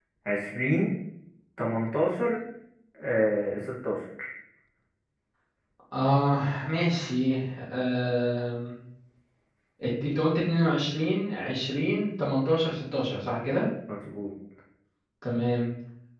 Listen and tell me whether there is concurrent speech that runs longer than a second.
No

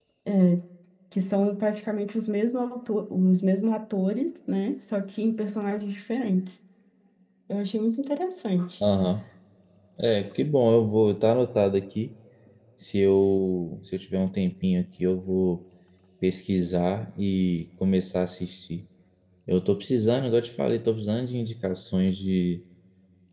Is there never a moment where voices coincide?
Yes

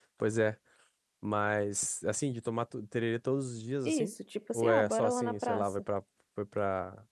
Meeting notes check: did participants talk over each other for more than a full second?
Yes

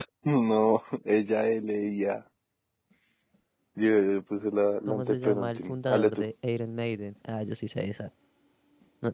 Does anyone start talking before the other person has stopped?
Yes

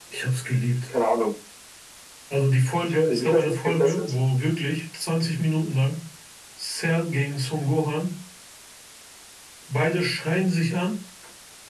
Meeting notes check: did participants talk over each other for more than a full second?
Yes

